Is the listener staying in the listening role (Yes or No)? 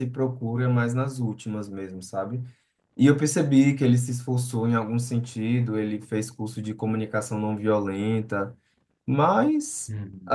Yes